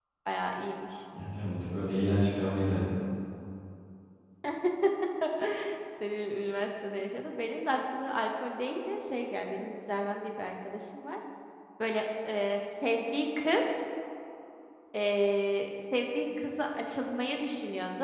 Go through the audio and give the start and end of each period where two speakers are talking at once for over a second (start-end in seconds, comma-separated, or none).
none